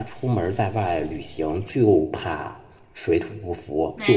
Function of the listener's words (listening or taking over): listening